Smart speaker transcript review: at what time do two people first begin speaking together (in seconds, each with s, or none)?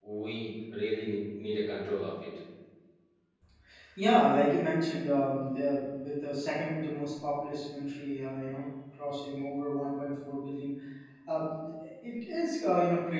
none